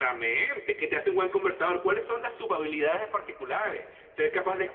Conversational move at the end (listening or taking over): listening